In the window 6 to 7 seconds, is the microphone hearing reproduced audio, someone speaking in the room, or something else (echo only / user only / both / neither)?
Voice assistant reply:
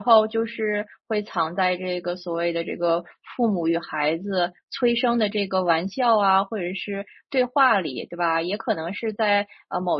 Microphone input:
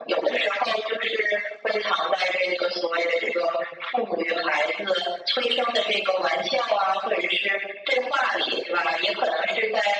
echo only